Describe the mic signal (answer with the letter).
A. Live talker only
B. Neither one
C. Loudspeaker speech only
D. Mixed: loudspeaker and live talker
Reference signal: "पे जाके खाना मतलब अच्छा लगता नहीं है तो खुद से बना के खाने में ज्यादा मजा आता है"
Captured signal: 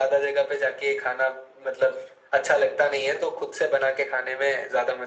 C